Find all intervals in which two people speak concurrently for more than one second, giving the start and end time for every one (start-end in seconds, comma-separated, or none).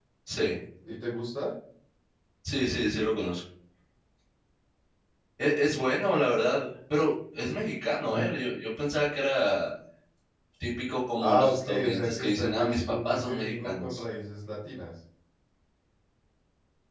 11.2-14.0